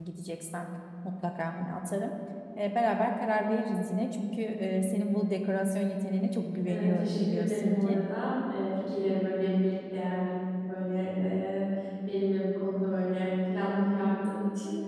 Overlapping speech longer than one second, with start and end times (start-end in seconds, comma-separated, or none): 6.7-8.0